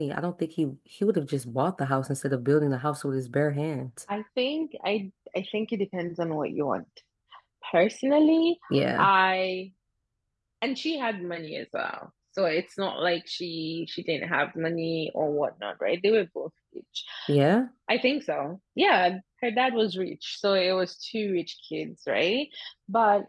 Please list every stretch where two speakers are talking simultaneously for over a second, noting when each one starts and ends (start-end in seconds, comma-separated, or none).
none